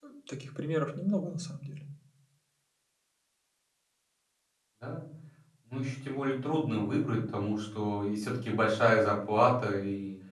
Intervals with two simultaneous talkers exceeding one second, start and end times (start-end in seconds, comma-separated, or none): none